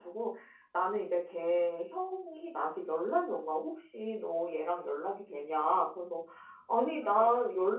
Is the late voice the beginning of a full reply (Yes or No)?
No